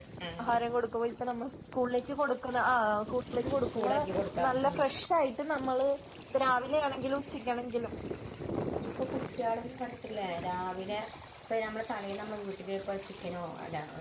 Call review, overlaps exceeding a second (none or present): none